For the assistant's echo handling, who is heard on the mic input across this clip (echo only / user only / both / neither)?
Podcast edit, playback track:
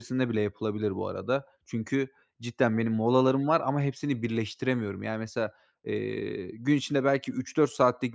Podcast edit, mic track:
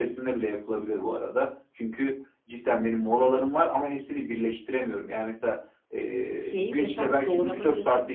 both